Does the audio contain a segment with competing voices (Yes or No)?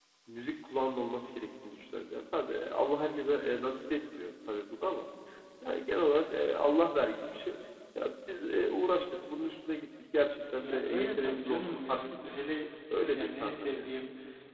Yes